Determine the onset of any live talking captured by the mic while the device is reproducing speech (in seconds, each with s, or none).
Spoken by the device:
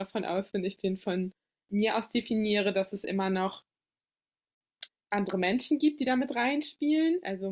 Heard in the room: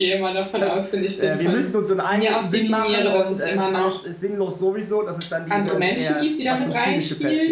0.6 s